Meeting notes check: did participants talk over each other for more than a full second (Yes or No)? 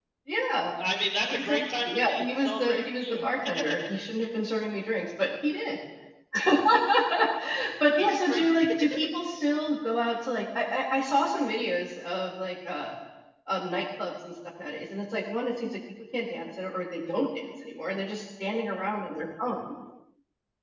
Yes